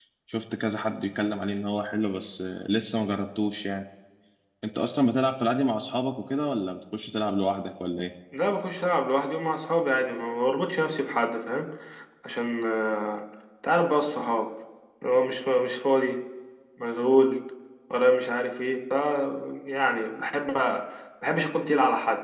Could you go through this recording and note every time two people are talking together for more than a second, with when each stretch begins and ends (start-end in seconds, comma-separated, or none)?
none